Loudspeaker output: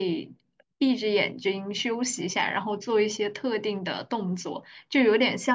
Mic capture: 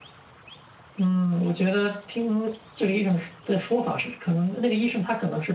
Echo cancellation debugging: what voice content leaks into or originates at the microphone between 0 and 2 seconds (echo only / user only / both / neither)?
user only